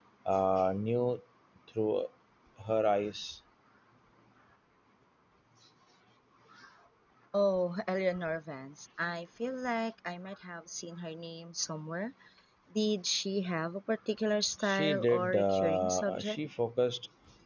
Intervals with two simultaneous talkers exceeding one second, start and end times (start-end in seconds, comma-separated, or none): 14.6-16.4